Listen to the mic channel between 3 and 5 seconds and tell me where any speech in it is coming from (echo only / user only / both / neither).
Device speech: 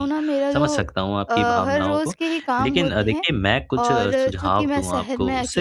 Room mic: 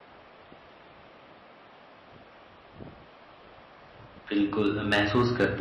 user only